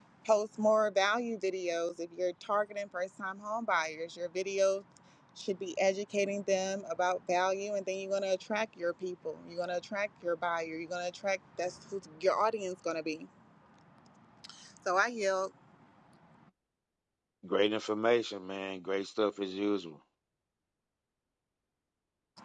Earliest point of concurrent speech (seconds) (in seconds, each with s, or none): none